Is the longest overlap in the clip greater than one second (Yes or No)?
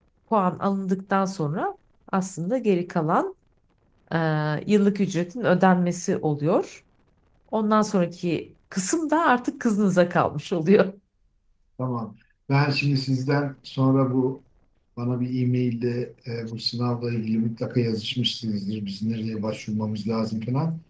No